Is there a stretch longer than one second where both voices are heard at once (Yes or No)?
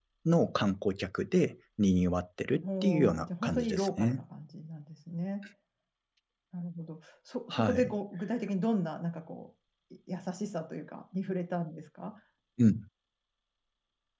Yes